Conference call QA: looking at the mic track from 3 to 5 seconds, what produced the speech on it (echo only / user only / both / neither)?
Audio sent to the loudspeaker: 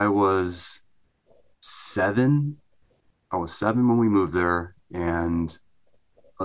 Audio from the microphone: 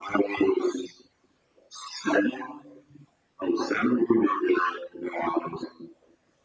echo only